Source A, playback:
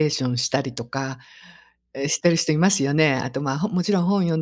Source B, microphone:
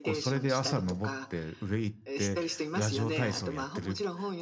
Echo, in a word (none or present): present